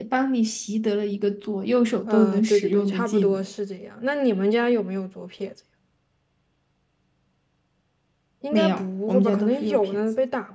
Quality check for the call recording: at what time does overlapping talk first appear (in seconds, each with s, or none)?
2.1 s